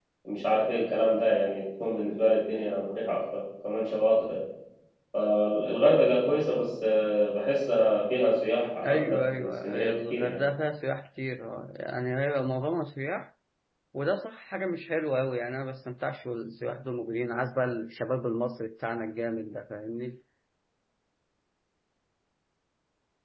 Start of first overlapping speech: 8.8 s

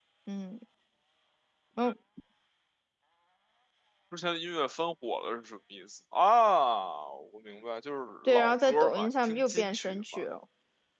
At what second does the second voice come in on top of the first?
8.3 s

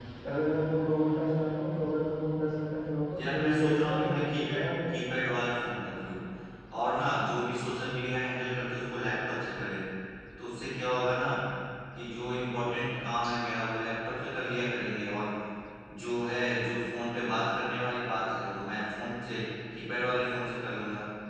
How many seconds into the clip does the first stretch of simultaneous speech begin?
3.2 s

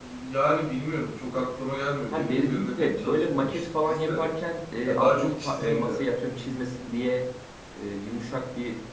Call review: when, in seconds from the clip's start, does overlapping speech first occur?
2.1 s

